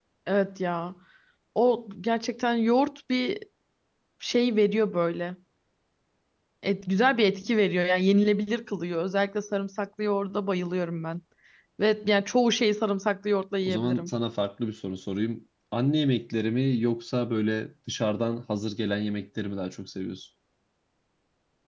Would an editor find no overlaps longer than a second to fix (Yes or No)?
Yes